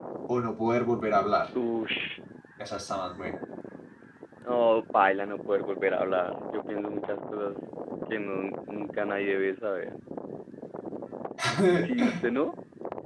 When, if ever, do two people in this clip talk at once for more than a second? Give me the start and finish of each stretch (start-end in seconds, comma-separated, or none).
none